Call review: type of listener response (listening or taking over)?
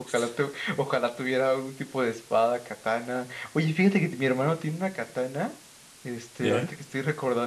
listening